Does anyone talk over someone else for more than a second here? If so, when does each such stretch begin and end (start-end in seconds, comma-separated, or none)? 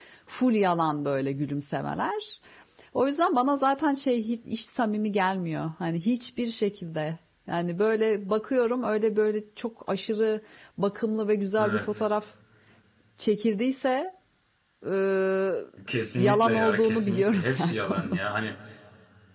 16.2-18.2